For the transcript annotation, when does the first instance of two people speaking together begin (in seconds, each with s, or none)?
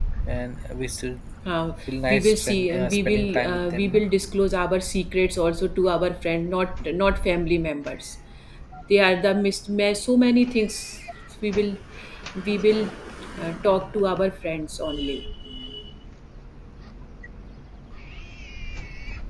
2.1 s